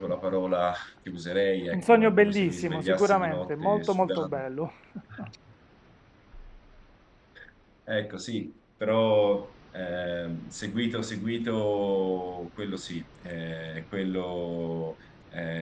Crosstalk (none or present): present